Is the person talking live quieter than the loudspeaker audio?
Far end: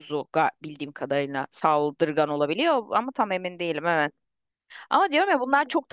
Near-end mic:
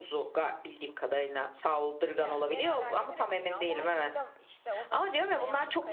Yes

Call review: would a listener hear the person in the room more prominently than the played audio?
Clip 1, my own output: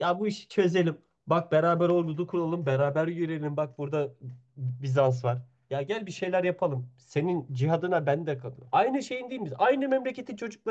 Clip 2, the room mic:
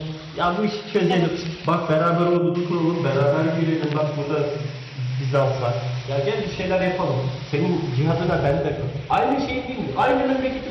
No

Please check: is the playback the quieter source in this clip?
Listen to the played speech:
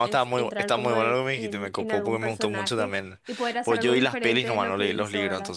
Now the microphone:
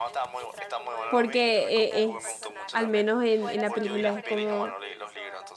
Yes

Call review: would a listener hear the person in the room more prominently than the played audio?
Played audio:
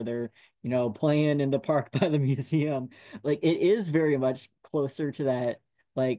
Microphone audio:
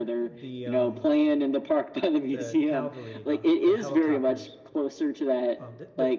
No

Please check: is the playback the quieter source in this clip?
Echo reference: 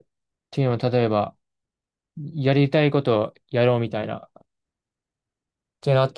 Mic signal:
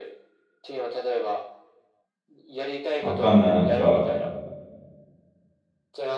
Yes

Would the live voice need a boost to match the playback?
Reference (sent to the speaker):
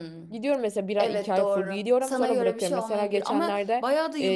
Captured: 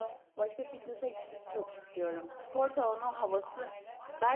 No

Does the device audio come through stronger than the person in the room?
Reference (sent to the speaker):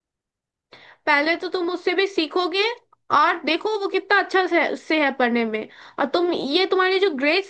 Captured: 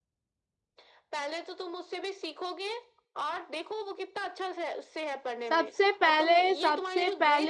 No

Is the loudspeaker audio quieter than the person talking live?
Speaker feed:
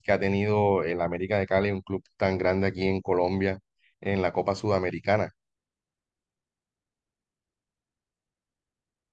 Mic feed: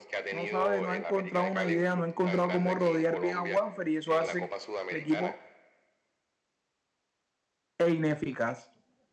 Yes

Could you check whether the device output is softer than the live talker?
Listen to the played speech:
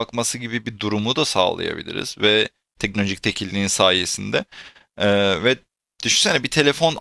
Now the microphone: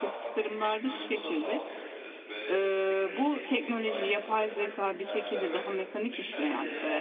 Yes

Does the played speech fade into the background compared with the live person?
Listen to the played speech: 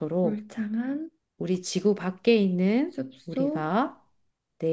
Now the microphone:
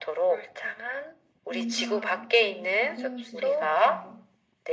No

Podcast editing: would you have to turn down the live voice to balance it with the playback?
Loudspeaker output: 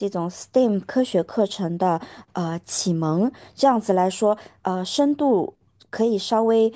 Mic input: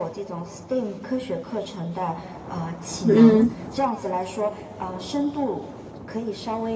Yes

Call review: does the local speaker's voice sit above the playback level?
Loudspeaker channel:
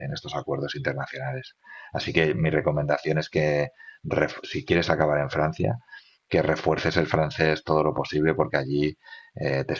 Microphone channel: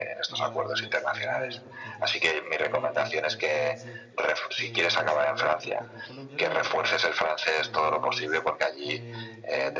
No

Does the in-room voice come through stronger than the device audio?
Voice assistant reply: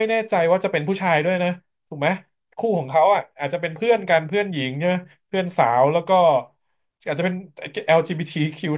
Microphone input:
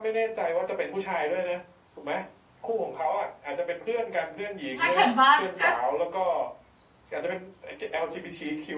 Yes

